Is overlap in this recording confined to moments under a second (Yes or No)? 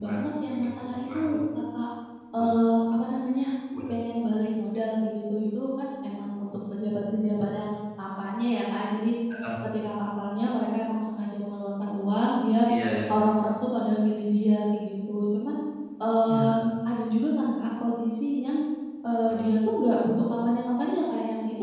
No